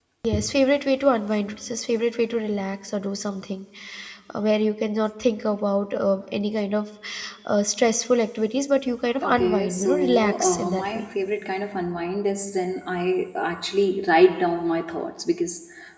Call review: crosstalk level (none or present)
present